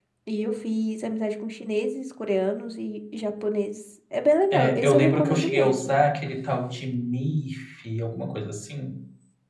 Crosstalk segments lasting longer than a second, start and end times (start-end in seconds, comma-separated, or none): 4.5-6.0